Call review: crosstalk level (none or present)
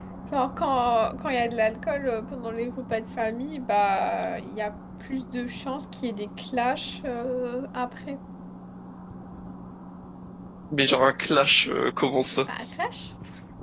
none